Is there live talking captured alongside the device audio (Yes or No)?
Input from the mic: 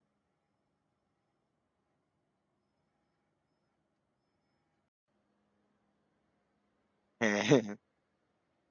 Yes